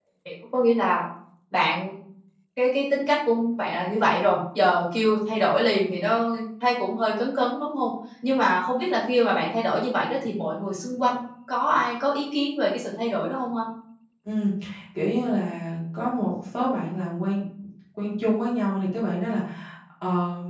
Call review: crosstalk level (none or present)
none